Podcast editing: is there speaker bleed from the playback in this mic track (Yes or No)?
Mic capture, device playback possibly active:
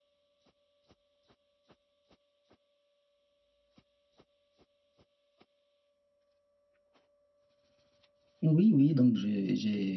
No